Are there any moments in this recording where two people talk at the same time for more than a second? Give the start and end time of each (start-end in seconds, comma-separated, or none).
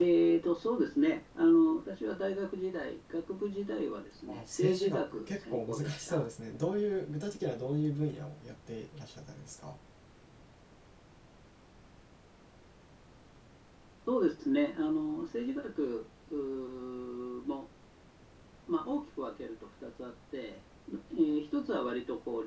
4.3-6.2